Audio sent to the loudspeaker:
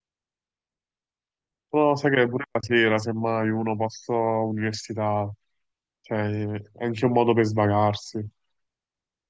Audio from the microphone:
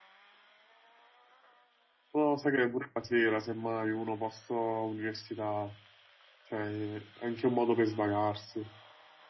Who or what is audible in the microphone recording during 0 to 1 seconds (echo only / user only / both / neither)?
neither